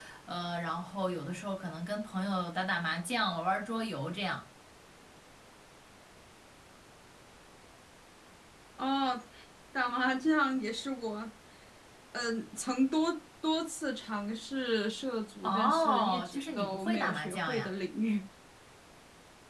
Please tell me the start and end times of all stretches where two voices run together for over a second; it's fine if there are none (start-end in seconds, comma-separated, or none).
15.4-17.7